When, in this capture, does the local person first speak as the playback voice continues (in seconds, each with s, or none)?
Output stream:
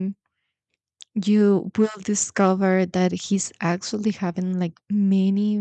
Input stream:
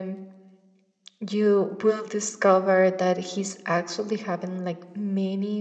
none